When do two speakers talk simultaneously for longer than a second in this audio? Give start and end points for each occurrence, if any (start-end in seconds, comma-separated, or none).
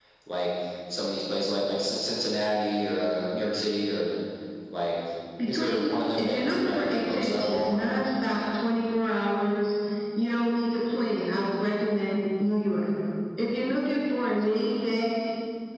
5.5-7.8